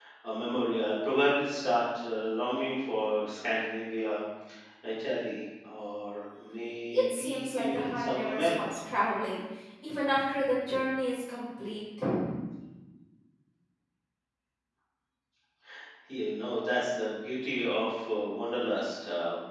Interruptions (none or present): present